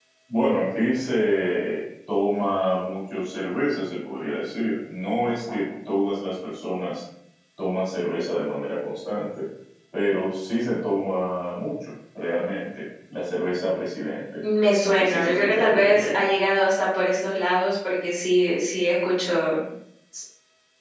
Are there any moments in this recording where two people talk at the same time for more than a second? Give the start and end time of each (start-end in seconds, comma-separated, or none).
14.8-16.2